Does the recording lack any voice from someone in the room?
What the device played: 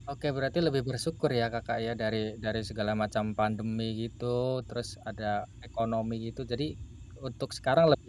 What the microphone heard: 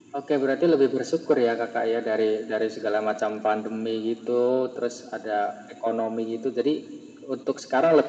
Yes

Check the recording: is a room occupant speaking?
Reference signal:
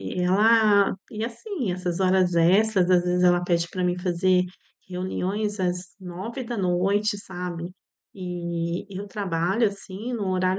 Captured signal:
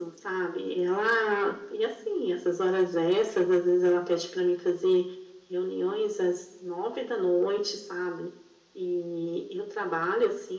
No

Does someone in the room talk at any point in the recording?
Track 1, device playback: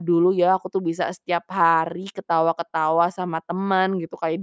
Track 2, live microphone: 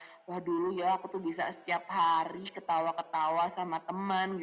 No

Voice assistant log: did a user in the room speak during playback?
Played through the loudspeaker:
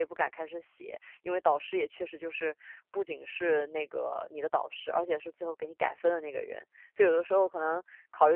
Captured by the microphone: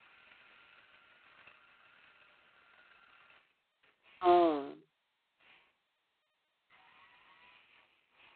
Yes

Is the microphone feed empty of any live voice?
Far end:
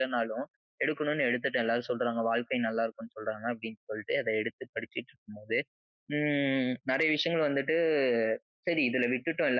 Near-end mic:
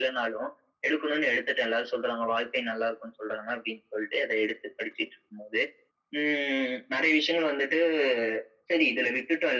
Yes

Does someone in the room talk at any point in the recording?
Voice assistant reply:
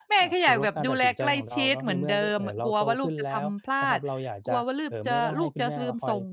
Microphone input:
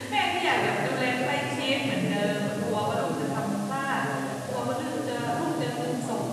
No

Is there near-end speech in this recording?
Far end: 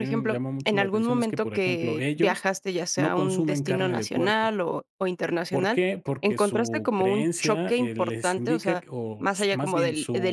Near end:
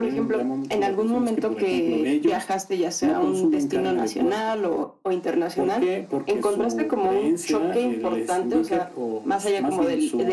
No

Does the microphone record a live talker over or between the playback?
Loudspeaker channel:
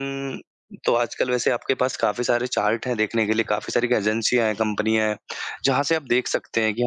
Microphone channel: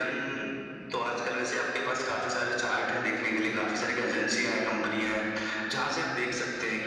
No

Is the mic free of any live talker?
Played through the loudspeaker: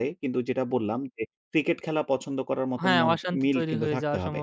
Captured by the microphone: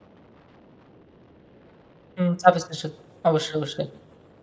No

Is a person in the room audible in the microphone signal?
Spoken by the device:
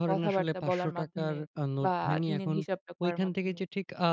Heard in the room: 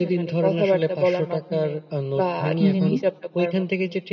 Yes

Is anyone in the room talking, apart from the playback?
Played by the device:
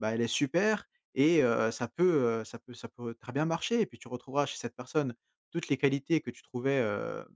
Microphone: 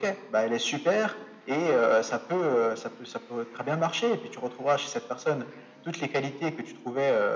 No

